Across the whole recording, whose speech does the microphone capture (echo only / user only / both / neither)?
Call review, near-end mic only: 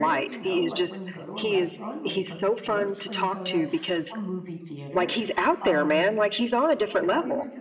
both